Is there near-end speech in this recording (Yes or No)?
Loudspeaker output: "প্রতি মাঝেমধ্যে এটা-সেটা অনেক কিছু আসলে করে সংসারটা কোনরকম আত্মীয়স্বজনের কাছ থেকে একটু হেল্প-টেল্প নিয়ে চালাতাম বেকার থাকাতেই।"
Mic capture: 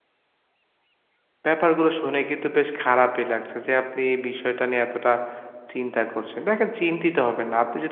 Yes